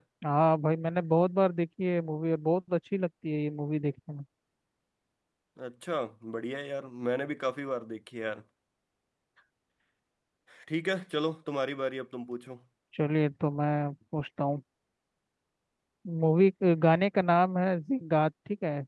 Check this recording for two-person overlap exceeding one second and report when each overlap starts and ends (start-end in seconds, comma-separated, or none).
none